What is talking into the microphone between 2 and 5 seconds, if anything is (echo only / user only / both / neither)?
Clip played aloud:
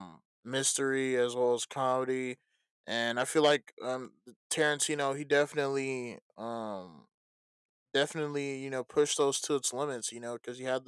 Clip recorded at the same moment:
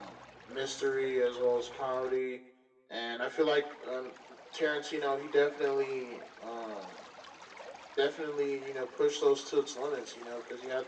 echo only